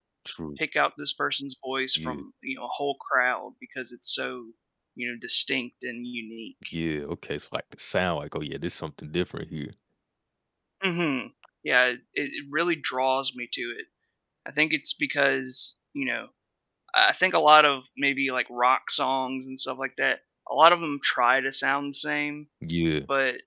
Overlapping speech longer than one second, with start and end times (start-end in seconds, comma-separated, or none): none